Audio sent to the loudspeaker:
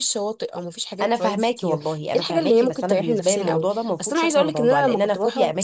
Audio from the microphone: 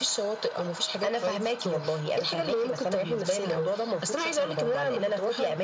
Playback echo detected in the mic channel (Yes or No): Yes